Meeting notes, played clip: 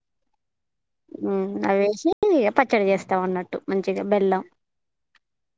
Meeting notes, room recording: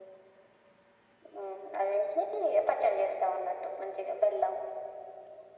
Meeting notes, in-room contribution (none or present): none